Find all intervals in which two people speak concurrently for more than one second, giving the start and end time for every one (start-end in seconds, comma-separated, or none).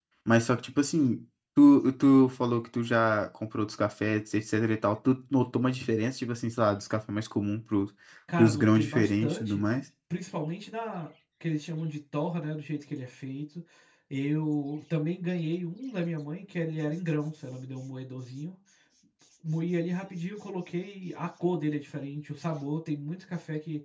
8.4-9.6